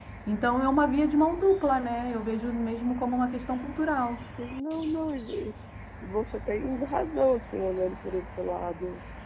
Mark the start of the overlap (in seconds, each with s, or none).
none